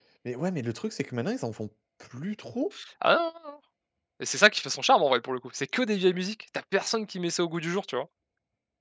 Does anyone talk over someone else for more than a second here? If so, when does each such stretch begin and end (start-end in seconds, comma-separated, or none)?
none